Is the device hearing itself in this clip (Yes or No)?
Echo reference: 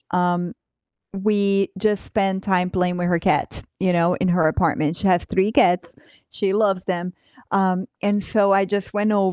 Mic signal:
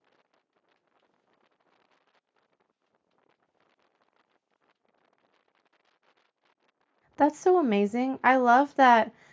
No